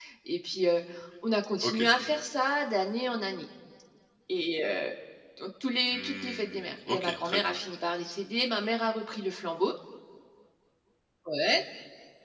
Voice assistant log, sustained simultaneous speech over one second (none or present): present